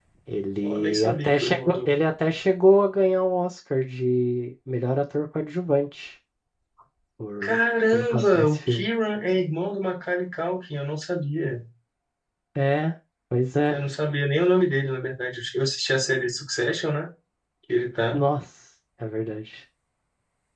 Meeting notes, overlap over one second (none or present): present